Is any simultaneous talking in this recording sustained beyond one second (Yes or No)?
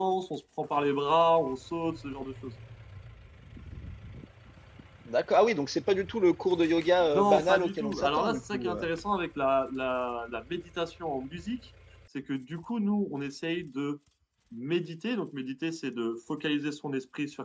Yes